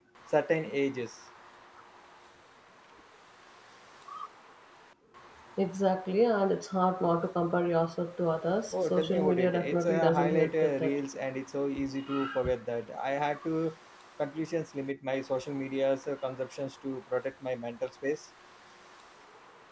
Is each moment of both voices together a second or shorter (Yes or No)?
No